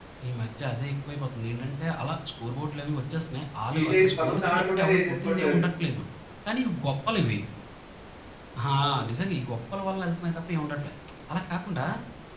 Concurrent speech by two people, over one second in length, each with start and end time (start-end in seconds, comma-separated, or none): 3.7-5.6